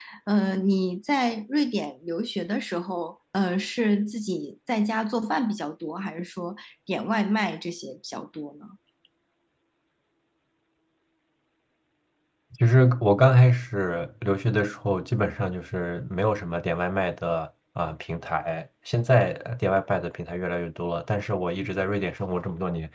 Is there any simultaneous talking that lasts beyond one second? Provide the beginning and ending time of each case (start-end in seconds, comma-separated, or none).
none